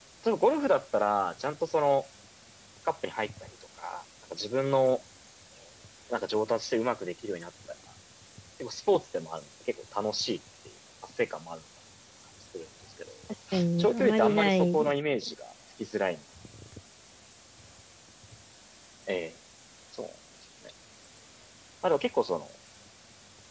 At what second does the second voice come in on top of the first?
13.8 s

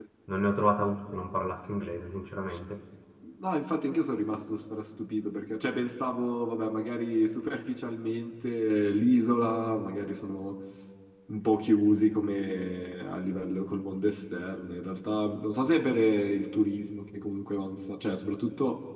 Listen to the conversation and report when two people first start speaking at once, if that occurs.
none

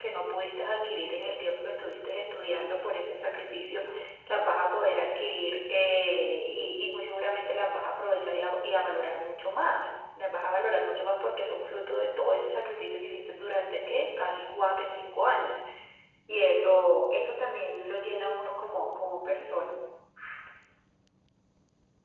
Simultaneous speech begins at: none

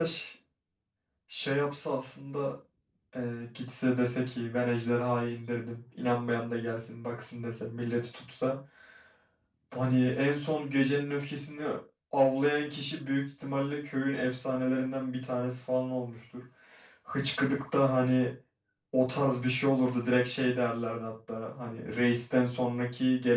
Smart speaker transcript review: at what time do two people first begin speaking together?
none

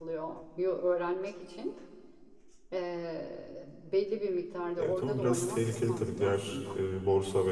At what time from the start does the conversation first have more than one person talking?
4.8 s

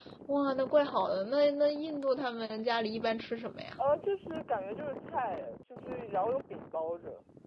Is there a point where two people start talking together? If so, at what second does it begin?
none

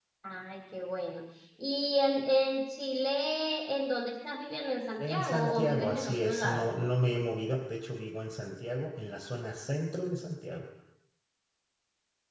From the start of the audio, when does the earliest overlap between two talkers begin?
5.0 s

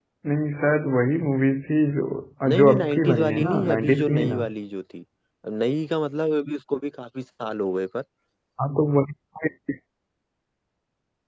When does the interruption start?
2.5 s

